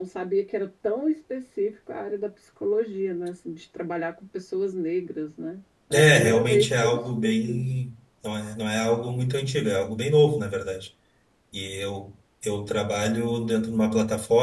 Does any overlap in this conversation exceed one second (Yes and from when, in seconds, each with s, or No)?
Yes, from 5.9 s